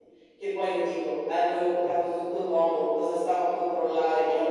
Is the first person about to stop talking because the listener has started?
Yes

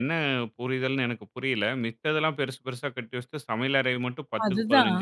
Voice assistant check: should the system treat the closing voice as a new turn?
No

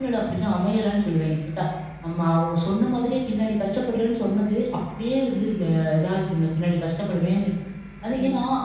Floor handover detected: Yes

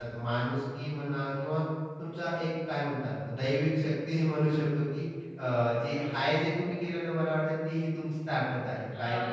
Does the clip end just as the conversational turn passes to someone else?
No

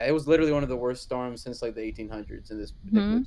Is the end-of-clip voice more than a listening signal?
Yes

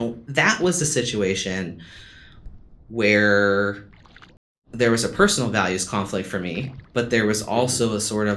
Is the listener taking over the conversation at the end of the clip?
No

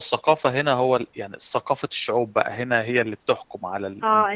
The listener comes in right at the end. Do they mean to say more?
Yes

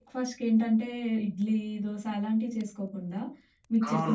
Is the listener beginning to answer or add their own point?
Yes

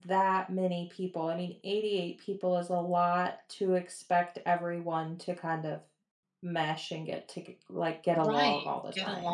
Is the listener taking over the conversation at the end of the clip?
Yes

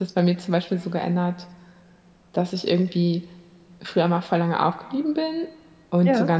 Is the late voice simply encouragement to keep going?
Yes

